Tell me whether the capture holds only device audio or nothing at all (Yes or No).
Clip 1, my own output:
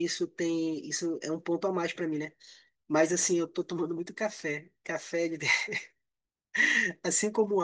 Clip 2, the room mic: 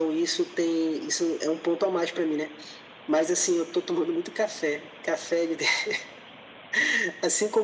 Yes